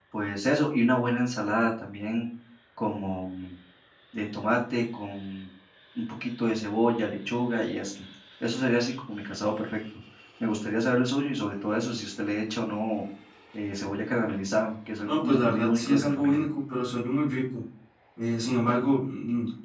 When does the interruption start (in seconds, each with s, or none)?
15.0 s